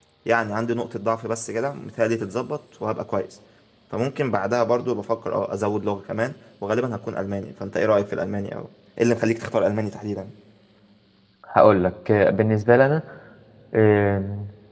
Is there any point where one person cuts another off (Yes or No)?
No